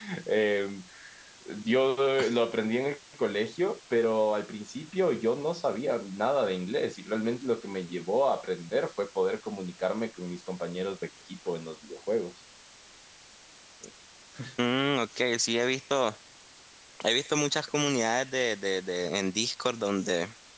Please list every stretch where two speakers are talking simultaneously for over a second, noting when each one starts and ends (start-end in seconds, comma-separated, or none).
none